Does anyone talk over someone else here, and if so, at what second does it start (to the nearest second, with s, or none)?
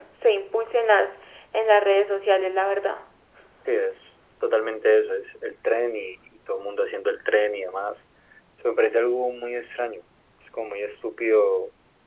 none